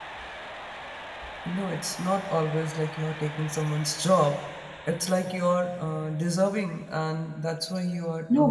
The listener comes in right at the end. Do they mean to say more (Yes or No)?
Yes